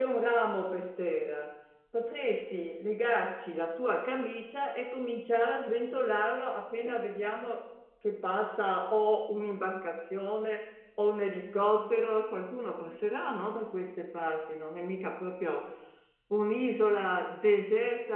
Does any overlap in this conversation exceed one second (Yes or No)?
No